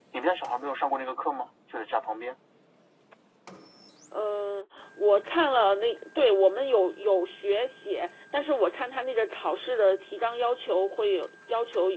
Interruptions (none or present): none